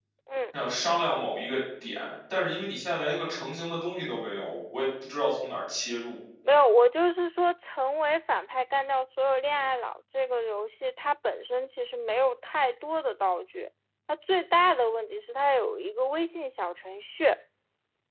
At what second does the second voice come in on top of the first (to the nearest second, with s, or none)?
none